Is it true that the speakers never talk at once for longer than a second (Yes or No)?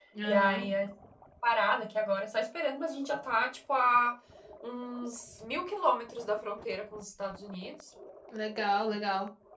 Yes